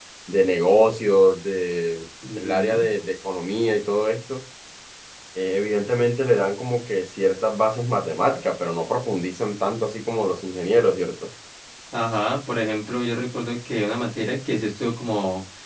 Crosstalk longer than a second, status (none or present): none